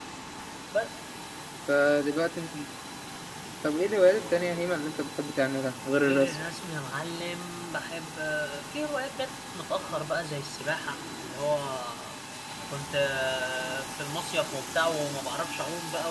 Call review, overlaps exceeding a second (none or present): none